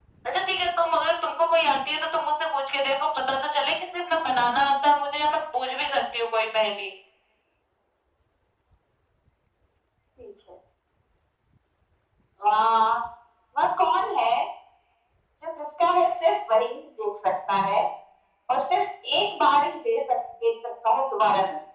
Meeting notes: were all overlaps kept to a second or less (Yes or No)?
Yes